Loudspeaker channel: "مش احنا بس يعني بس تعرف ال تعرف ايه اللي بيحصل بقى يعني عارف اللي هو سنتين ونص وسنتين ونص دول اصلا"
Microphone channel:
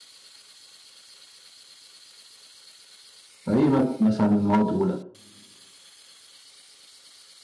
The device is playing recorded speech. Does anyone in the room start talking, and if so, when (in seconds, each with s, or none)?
3.4 s